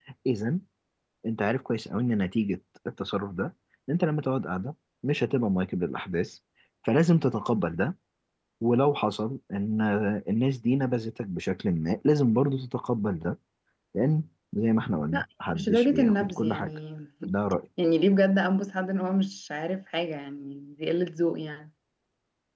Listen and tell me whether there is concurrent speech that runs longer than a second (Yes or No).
Yes